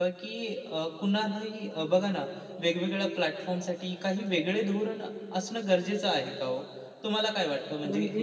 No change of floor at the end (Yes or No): Yes